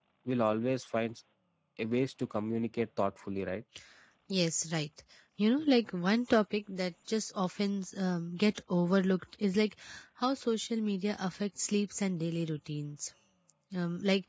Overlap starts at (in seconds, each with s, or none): none